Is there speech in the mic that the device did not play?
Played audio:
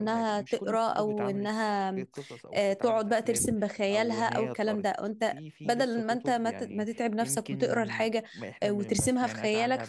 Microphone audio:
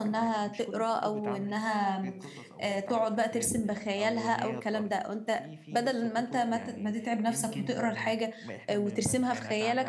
No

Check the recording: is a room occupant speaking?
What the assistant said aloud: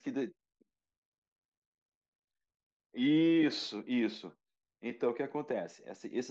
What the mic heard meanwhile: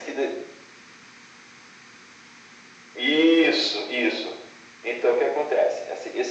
No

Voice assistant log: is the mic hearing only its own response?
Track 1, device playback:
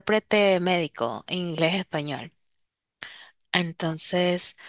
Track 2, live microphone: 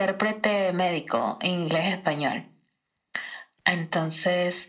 Yes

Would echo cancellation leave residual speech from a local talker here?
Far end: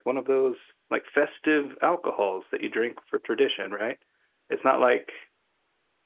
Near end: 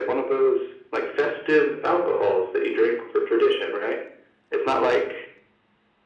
No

